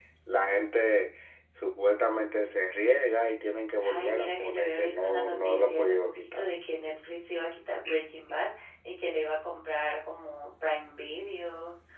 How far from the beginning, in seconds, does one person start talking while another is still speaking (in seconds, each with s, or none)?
3.8 s